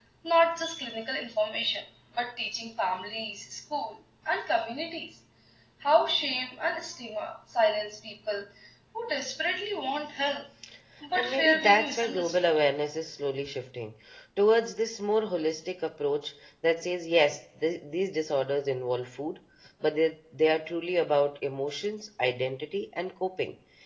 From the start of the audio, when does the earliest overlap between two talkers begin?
11.2 s

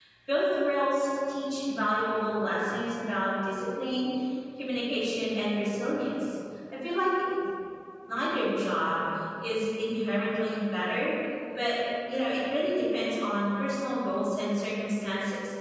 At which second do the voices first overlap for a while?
none

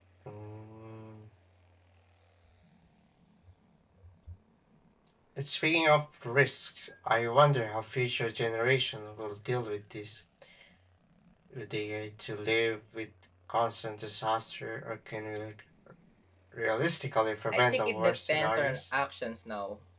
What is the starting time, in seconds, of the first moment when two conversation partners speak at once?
17.5 s

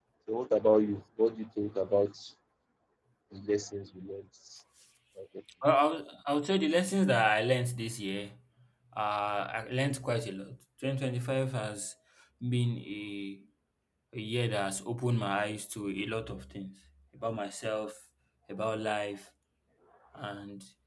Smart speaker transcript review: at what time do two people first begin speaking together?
none

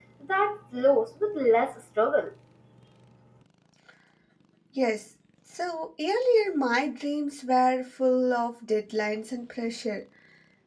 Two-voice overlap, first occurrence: none

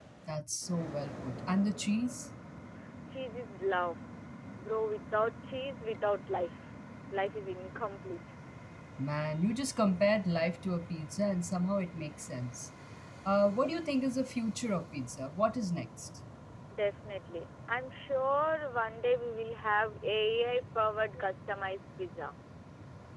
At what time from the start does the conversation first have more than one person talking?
none

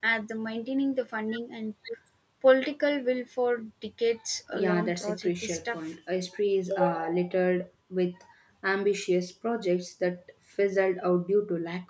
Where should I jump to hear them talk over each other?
4.5 s

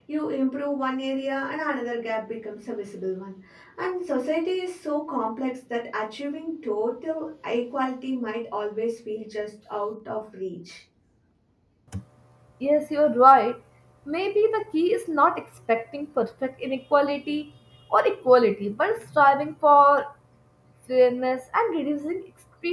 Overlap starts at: none

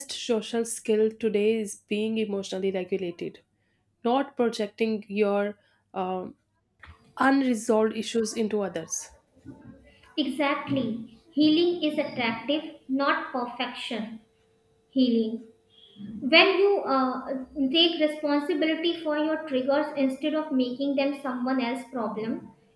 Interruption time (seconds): none

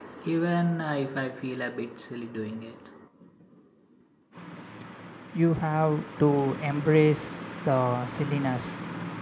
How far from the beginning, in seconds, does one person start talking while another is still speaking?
none

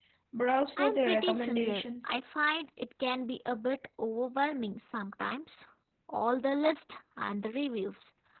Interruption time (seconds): 0.8 s

